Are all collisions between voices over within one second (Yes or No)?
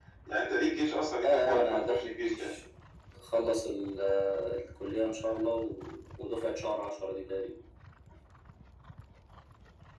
No